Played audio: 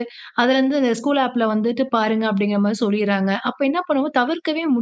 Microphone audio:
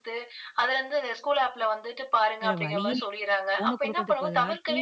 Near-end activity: present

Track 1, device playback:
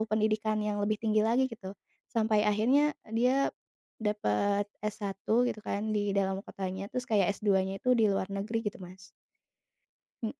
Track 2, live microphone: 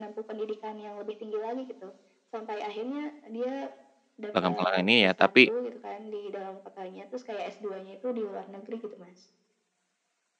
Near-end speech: present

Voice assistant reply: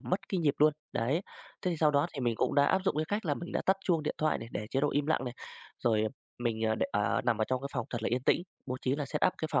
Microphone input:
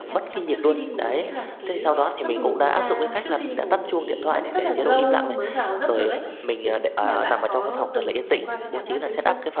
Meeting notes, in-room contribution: present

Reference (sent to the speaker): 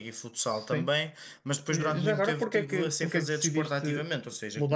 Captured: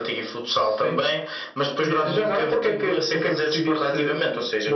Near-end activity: none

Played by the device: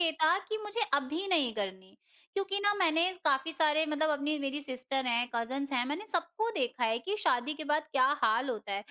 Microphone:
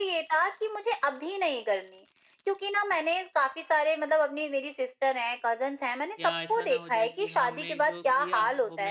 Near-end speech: present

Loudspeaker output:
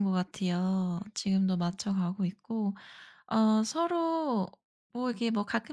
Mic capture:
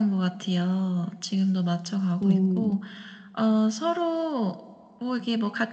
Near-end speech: present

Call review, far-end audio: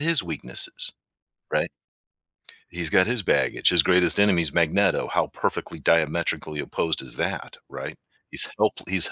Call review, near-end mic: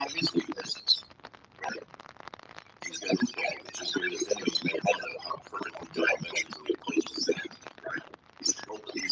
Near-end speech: none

